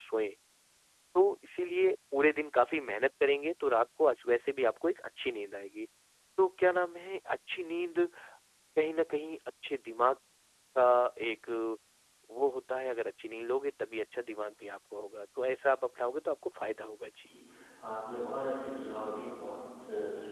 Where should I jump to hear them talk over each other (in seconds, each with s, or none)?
none